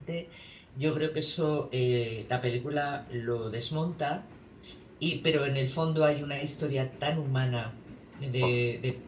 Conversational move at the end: listening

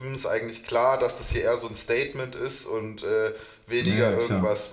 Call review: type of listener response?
listening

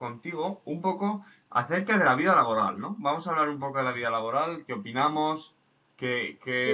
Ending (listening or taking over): taking over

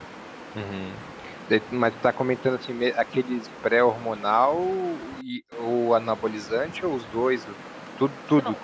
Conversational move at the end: taking over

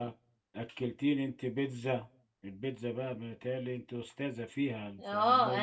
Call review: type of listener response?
taking over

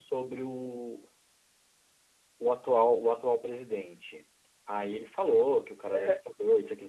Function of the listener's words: listening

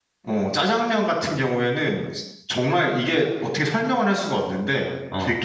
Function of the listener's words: listening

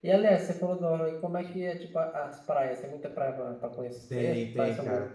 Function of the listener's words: taking over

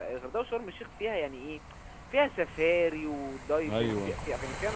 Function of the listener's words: listening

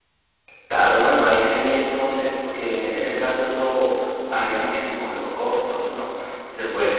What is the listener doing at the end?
listening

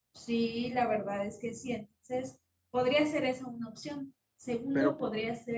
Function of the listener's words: listening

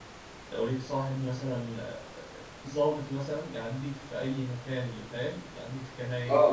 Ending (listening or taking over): taking over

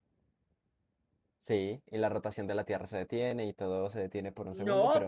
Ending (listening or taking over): taking over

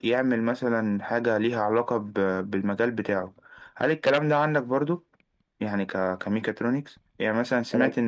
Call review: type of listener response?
listening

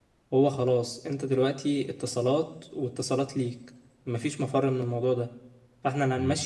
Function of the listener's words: listening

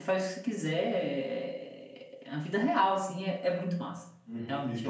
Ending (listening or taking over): taking over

